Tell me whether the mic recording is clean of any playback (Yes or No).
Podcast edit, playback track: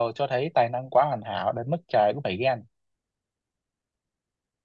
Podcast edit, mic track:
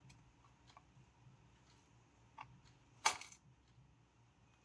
Yes